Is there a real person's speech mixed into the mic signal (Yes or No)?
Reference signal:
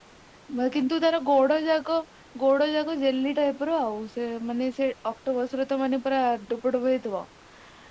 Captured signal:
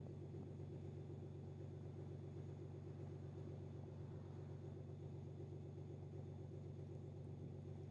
No